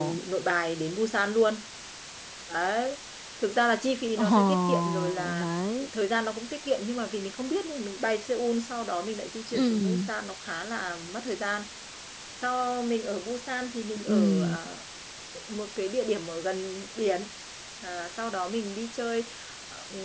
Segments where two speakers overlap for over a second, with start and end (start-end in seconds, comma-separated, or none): 4.2-5.5